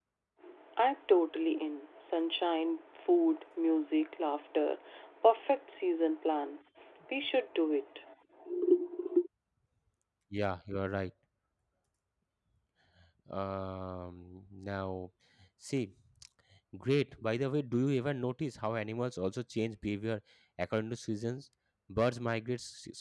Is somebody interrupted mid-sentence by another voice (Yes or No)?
No